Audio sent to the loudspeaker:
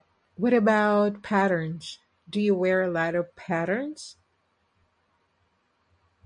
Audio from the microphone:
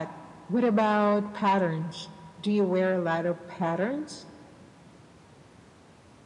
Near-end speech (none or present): none